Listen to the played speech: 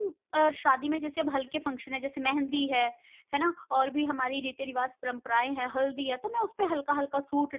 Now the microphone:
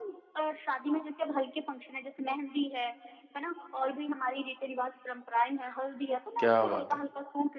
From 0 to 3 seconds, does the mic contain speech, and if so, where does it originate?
echo only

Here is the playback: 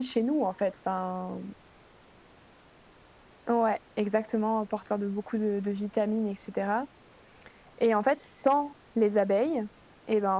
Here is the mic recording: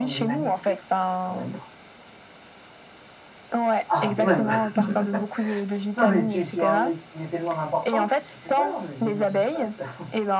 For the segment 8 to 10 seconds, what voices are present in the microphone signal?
both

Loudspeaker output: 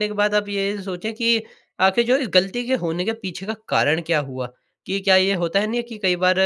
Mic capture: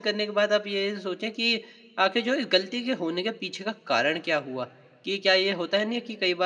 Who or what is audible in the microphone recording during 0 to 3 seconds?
echo only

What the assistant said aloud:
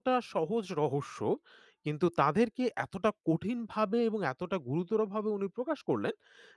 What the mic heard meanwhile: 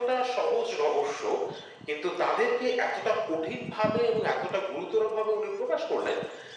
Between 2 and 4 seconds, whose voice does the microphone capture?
echo only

